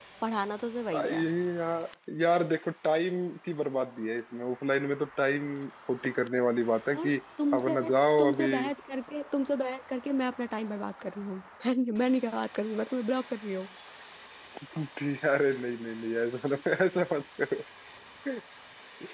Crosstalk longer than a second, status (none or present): none